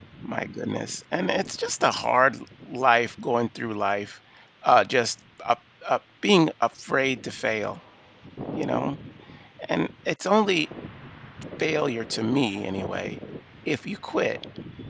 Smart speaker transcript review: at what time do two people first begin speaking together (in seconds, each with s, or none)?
none